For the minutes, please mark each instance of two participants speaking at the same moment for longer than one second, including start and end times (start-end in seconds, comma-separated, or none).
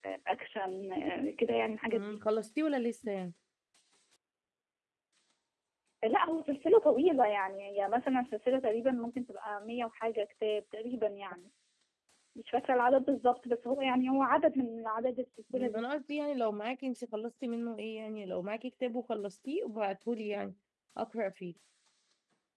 none